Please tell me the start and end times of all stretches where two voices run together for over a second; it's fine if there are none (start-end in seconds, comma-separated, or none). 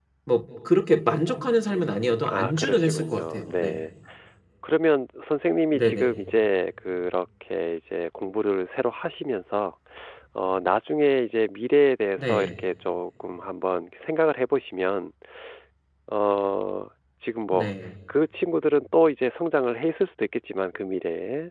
1.7-3.8